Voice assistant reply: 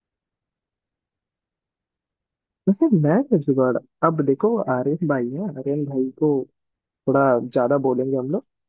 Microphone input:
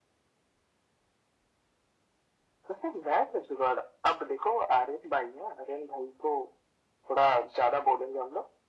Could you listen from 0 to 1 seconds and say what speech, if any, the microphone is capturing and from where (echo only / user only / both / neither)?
neither